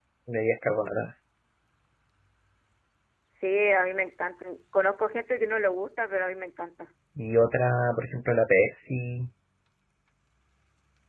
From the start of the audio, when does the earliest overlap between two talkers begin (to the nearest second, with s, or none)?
none